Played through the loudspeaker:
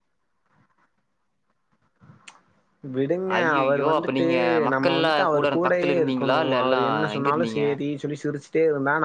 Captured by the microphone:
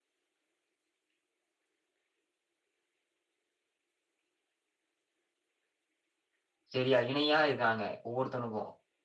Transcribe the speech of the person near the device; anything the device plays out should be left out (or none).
சேரியா இணியா இருக்காங்க ஒவ்வொருத்தவனுக்கு